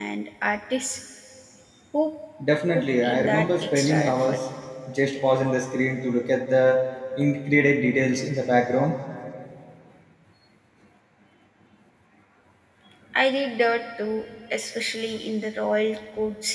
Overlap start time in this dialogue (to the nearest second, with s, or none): 3 s